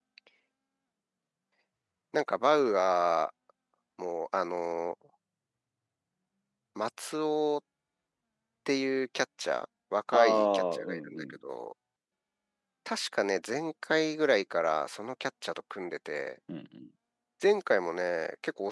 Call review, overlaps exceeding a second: present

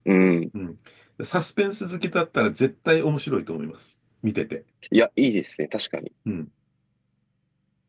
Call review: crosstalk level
none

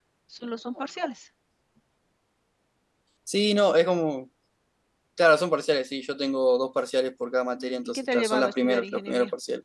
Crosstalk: present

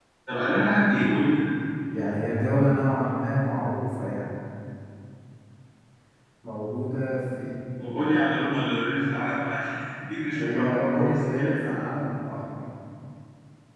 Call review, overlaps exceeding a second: present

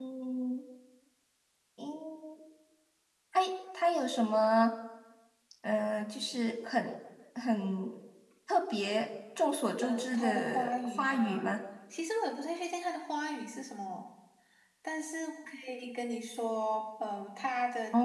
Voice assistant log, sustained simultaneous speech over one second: present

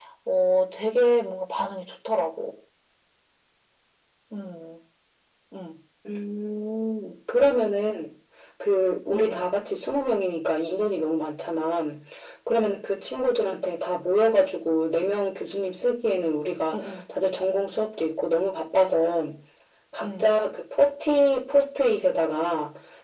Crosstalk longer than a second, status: none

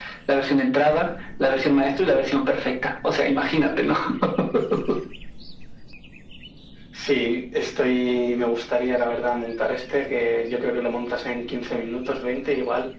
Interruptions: none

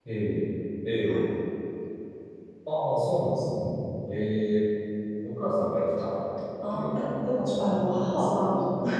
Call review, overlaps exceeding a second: present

